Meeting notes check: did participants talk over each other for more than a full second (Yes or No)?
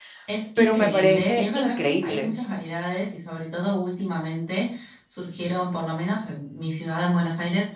Yes